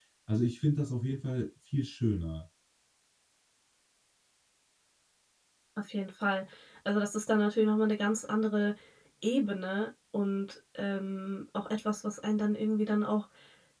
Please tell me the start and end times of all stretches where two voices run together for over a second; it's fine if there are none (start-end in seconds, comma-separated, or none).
none